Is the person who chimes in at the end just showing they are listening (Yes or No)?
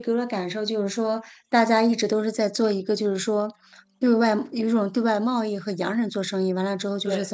Yes